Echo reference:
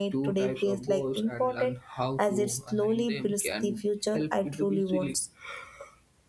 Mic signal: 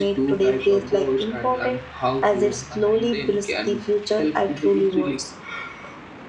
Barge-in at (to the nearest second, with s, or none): none